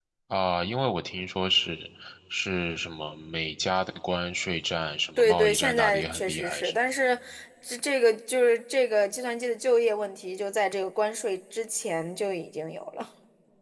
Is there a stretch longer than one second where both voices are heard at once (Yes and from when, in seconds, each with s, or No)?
Yes, from 5.2 s